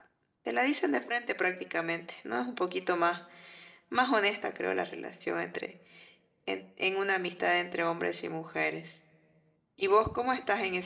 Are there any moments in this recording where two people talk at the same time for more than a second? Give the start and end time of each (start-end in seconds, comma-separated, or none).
none